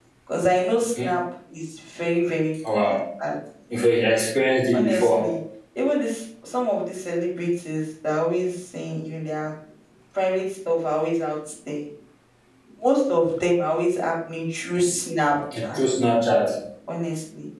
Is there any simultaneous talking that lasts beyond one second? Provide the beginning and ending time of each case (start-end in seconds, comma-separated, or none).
none